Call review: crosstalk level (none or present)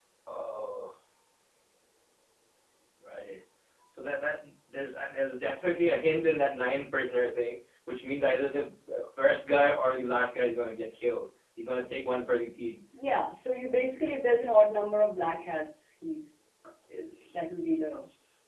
none